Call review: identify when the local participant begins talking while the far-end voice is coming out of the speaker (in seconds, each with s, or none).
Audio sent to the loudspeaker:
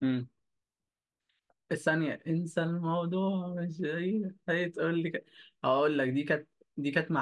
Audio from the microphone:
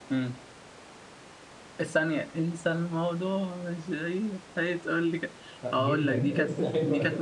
5.6 s